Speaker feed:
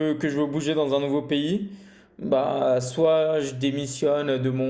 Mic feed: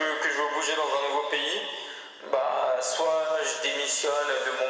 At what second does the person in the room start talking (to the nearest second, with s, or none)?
none